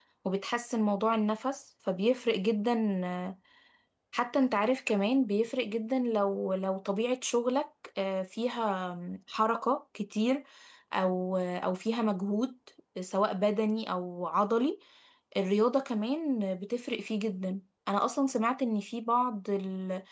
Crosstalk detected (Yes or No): No